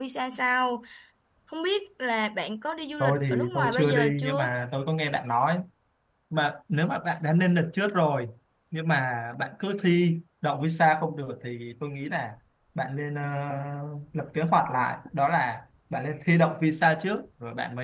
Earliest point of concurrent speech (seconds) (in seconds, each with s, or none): 3.0 s